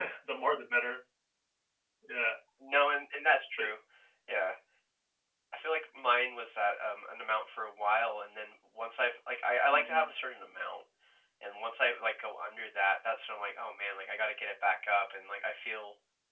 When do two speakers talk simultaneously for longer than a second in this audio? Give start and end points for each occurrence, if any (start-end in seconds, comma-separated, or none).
none